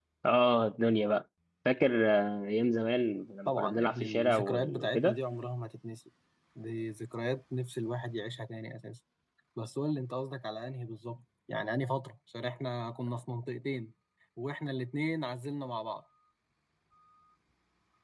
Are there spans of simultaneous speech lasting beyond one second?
Yes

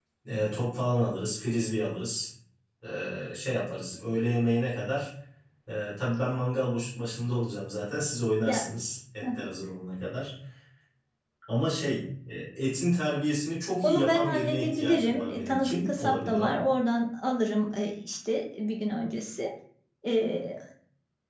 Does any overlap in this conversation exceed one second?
Yes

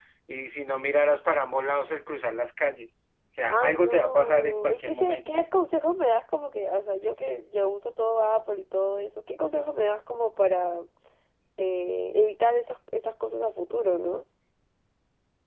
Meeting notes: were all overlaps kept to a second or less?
No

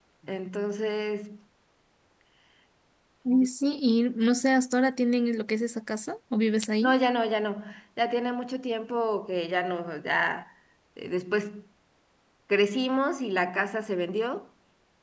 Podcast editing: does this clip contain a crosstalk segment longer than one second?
No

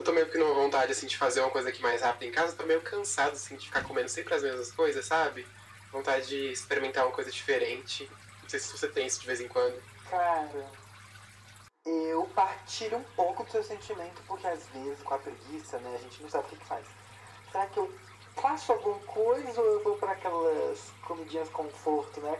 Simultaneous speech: No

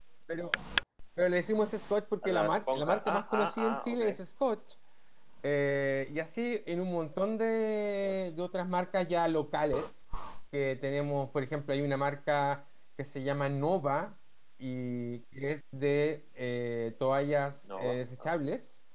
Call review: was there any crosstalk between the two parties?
Yes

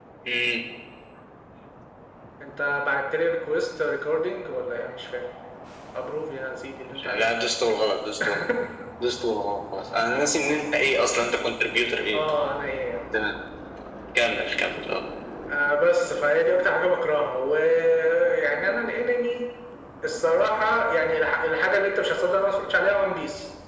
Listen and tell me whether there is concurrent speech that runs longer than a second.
No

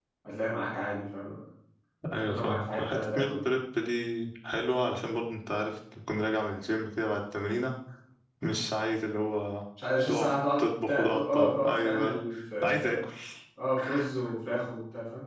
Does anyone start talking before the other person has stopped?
Yes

